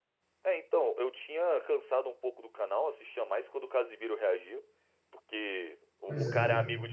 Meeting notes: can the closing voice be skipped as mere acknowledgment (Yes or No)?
Yes